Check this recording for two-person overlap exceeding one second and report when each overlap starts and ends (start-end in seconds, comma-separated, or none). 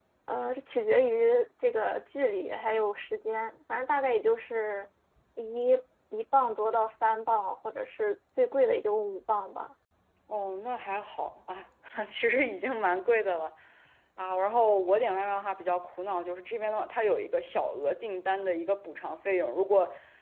none